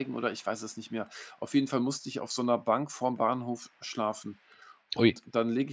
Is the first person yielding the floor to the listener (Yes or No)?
No